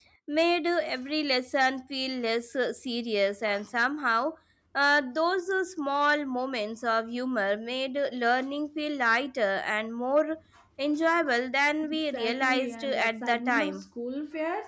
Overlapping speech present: Yes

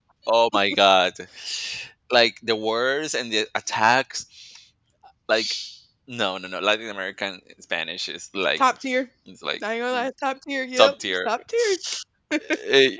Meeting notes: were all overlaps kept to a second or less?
Yes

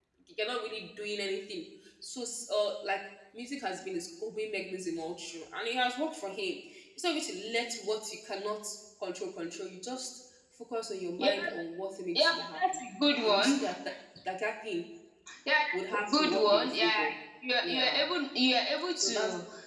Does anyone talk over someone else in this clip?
Yes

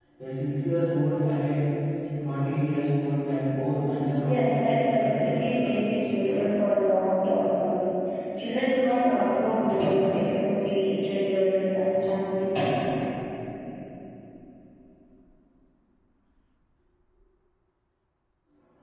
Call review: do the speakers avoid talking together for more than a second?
No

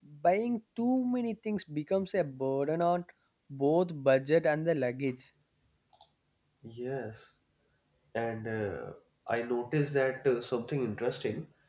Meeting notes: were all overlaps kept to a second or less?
Yes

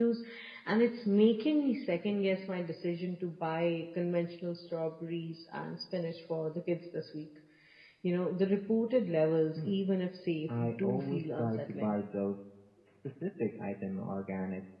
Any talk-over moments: Yes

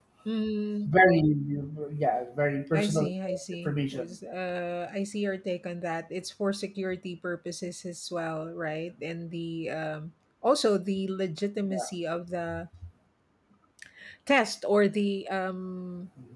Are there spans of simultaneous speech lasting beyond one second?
Yes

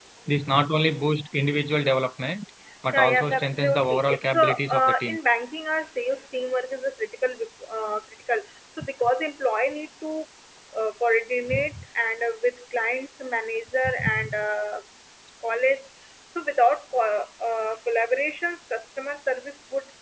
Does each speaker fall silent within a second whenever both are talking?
No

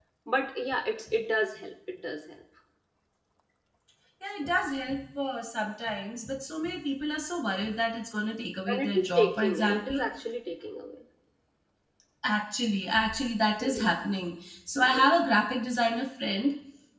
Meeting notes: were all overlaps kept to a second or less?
No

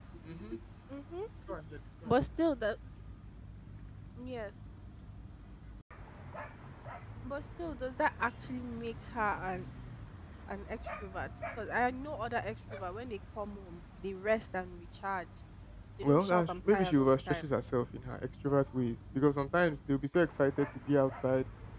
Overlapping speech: Yes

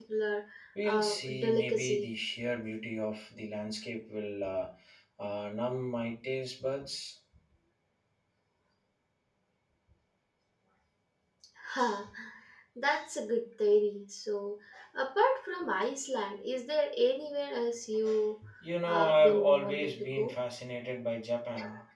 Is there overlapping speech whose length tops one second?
Yes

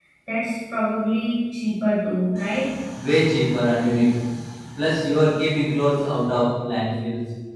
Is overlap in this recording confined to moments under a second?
Yes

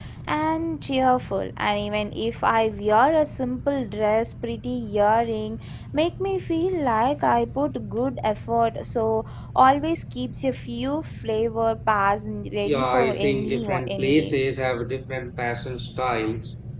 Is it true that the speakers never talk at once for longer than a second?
No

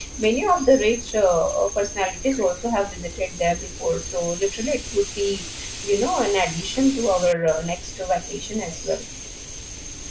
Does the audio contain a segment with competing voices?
No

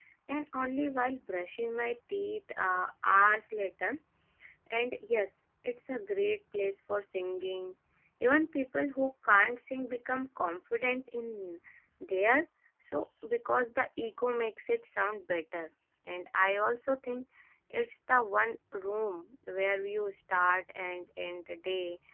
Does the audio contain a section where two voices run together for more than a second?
No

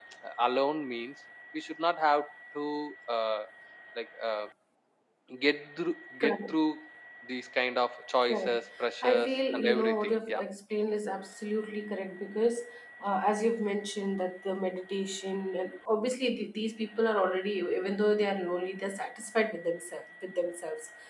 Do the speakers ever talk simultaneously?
Yes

